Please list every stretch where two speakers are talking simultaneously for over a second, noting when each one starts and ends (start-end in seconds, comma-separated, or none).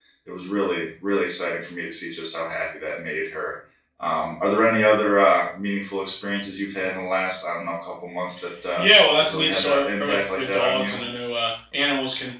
9.2-11.0